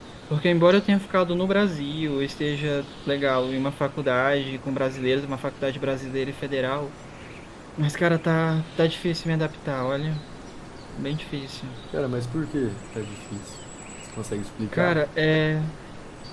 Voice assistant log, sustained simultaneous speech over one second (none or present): none